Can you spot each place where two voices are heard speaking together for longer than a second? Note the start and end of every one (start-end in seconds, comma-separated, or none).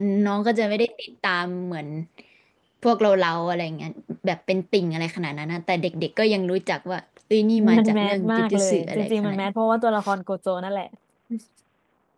7.8-9.5